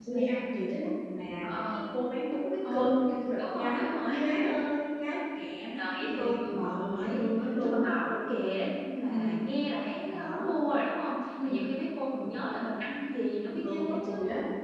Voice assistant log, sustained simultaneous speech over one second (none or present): present